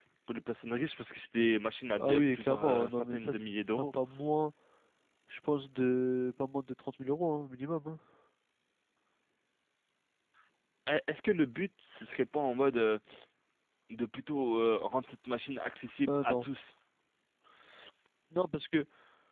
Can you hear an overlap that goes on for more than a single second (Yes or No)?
Yes